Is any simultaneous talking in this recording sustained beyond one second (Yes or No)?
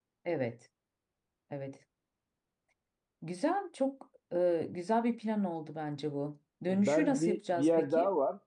Yes